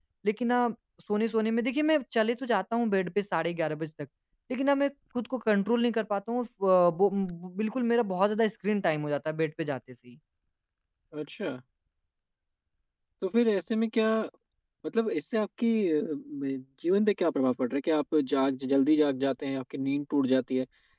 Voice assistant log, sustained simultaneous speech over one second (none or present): none